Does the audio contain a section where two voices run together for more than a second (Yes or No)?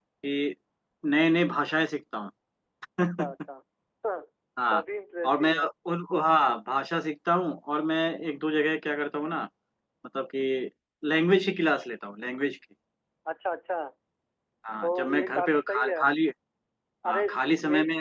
Yes